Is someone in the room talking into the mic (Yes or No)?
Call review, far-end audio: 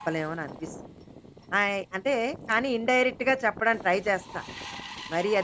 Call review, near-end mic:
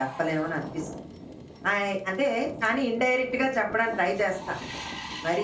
No